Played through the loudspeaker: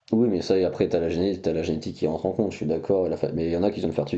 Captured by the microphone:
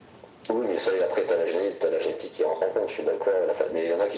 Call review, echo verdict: present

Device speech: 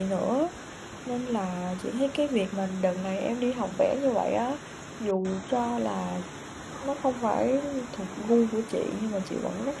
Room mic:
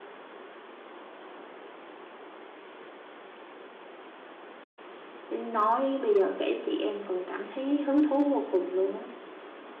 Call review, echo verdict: none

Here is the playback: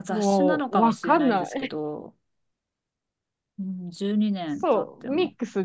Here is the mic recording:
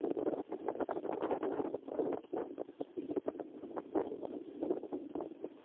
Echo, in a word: none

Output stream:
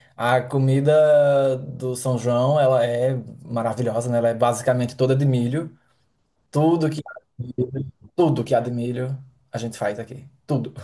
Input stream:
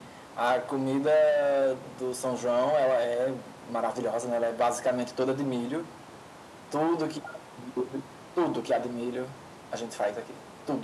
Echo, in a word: present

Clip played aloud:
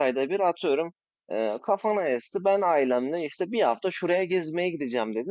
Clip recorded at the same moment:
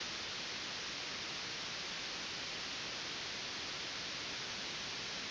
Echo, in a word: none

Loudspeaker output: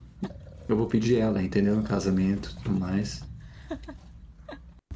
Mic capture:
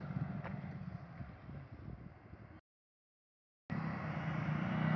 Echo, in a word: none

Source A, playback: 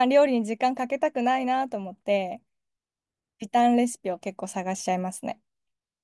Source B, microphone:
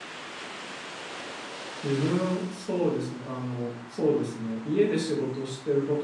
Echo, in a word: none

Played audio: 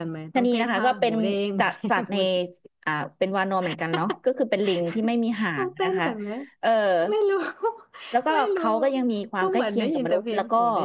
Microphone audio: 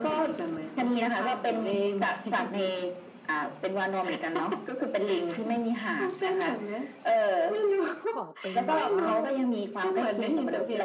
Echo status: present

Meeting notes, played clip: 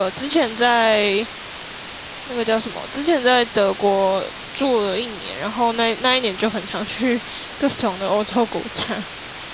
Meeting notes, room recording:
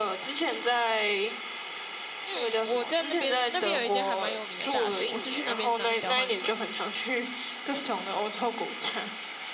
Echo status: present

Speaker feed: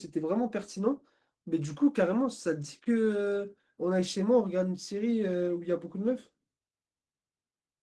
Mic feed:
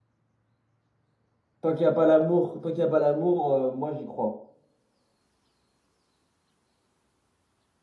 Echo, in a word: none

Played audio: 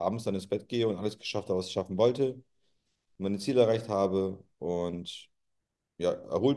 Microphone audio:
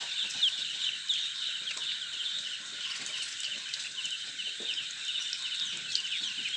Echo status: none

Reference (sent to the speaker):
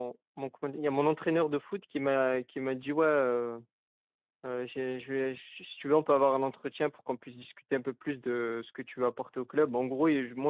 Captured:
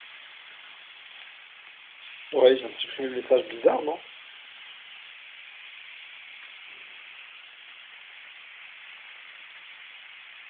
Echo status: none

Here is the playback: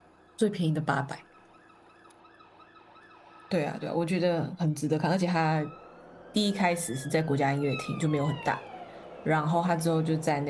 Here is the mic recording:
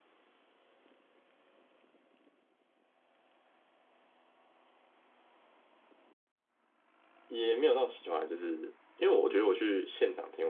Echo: none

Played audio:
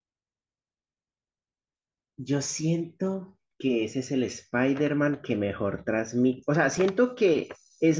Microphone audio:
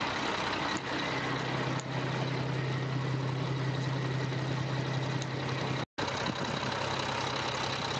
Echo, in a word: none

